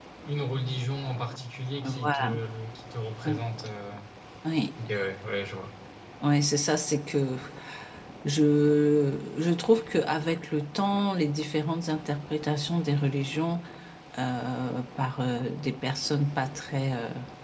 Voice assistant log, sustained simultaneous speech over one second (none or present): none